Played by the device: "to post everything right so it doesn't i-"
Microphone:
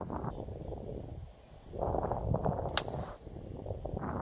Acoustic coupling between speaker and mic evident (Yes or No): No